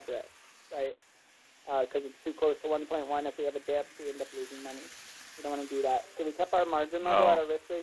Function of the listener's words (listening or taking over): listening